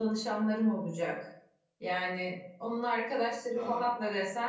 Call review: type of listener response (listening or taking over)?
listening